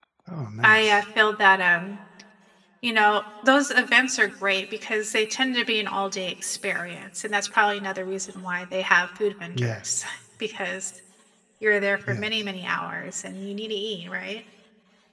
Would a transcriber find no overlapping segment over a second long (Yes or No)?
Yes